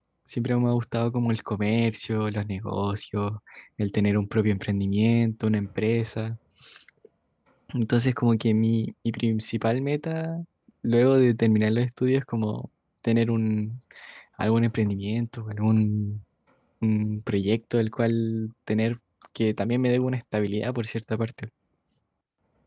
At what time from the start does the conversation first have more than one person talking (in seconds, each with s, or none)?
none